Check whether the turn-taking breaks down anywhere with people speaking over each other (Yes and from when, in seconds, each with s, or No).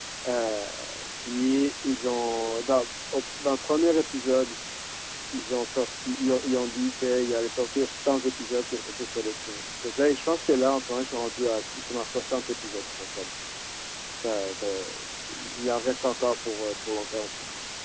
No